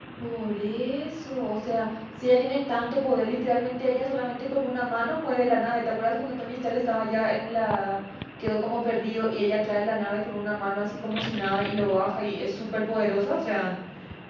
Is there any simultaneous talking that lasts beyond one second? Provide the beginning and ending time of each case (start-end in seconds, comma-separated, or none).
none